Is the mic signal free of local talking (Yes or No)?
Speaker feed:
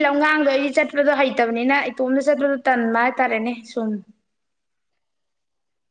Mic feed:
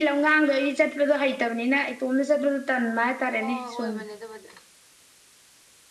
No